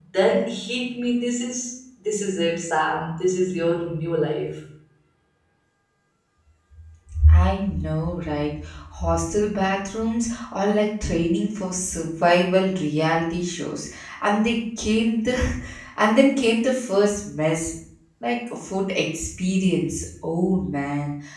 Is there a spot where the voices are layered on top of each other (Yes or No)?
No